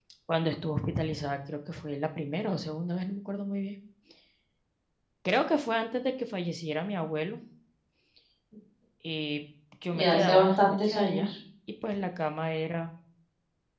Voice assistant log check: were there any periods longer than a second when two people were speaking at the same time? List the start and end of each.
9.9-11.3

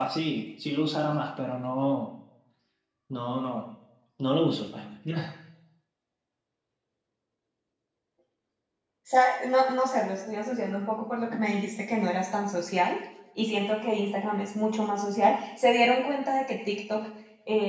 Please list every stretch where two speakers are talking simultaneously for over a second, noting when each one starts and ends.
none

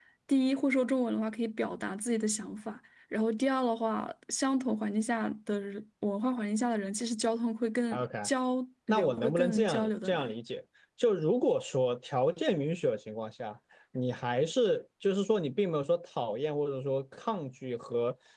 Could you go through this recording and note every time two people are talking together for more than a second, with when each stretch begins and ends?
8.9-10.3

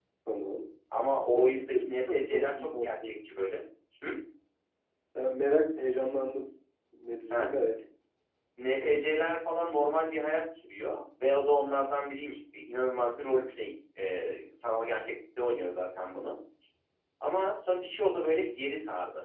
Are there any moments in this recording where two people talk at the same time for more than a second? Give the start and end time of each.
1.3-3.1

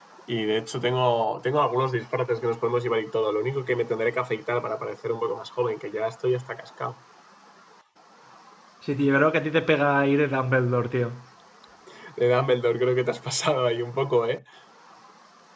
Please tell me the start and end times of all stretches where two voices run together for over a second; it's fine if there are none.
none

